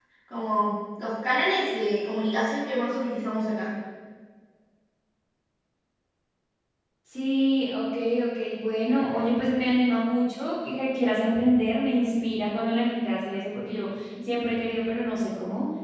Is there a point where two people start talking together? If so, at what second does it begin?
none

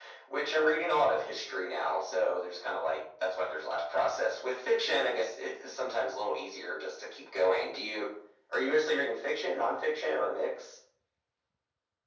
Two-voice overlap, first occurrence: none

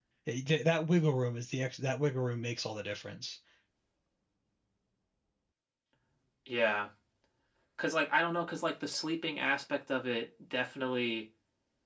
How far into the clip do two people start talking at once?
none

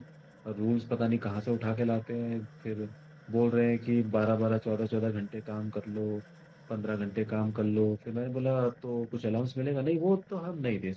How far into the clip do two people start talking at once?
none

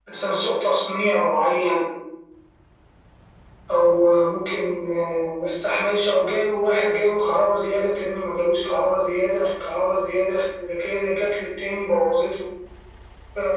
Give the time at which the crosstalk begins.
none

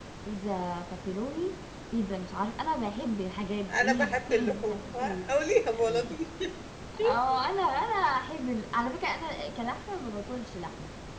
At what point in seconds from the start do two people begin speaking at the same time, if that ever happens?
3.7 s

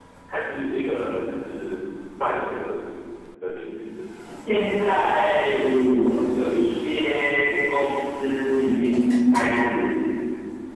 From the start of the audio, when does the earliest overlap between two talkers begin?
none

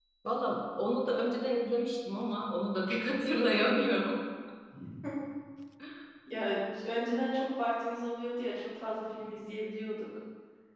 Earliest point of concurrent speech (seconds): none

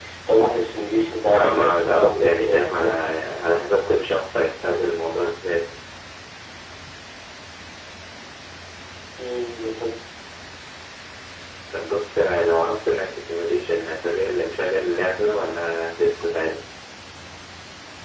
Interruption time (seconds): 1.3 s

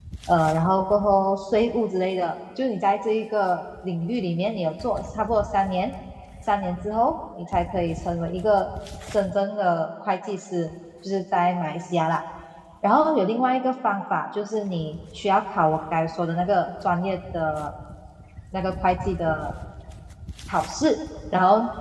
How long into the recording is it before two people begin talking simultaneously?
none

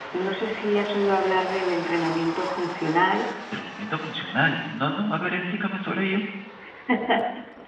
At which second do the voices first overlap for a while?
none

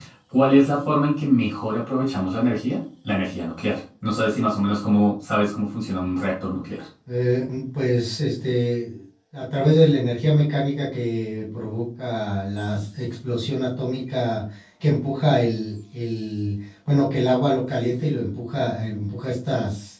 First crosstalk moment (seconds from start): none

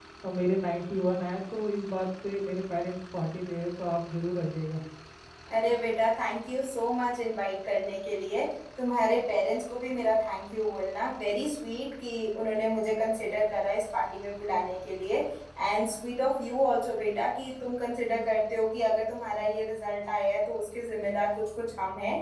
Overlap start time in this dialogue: none

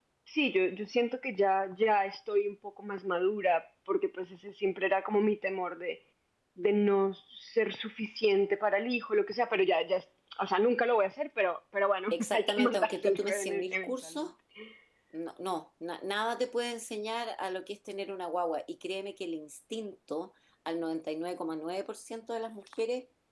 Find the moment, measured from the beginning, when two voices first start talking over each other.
12.1 s

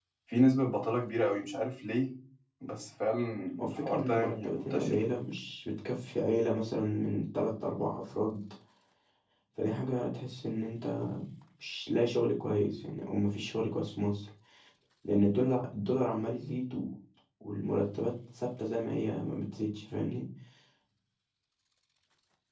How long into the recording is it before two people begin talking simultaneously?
3.6 s

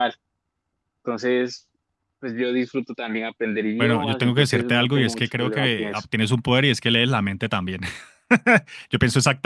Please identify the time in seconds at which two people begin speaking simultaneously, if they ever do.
3.8 s

